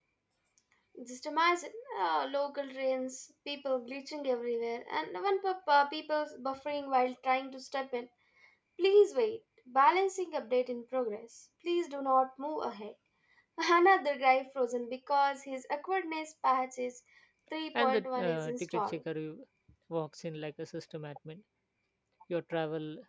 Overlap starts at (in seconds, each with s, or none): 17.8 s